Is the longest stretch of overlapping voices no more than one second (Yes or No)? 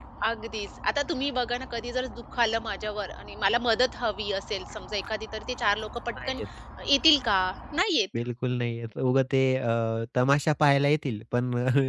Yes